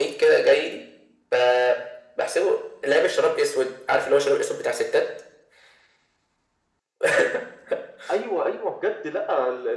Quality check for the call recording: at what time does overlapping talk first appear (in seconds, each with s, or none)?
none